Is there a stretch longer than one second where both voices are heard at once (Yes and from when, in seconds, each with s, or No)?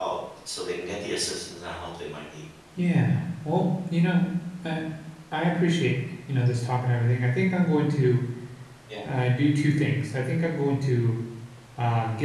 No